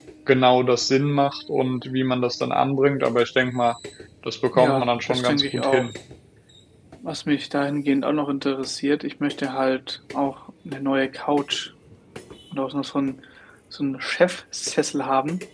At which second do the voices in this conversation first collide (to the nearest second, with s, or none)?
5 s